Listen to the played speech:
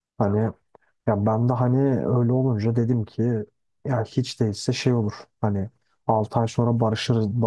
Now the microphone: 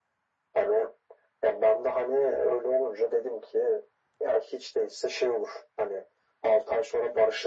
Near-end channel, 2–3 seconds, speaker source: echo only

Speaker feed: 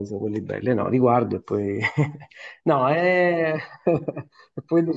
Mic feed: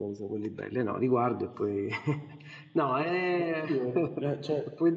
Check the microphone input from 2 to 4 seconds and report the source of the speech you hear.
both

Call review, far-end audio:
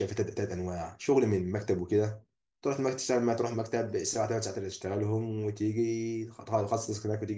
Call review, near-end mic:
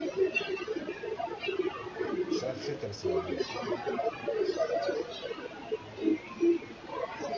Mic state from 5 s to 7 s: echo only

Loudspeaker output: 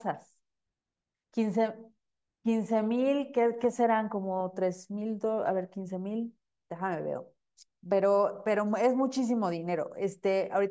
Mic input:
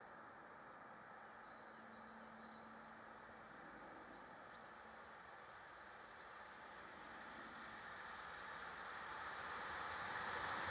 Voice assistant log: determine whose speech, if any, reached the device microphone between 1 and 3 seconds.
neither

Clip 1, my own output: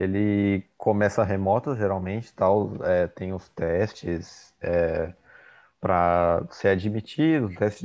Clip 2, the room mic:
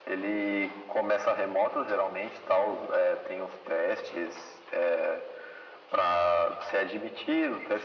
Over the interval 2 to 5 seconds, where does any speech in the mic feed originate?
echo only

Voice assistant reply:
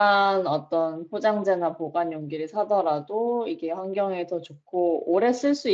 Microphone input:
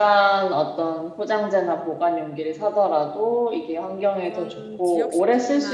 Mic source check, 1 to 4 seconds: echo only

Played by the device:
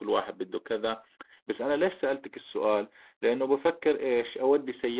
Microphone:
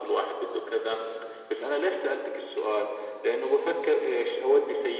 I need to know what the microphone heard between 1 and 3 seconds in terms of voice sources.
echo only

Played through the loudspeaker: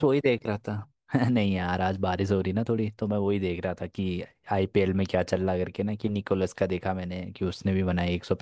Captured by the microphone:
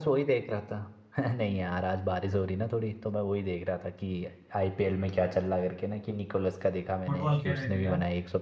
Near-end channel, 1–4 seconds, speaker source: echo only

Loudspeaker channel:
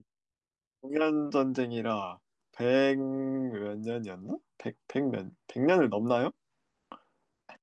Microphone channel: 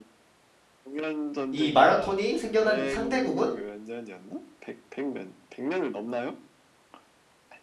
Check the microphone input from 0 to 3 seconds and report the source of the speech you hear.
both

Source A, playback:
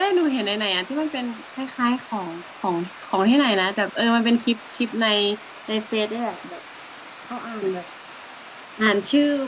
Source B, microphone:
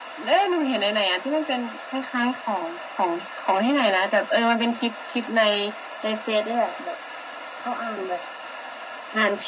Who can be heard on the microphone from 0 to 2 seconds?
echo only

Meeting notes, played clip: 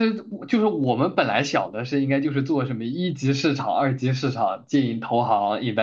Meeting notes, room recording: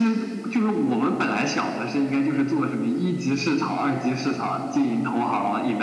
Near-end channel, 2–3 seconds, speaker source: echo only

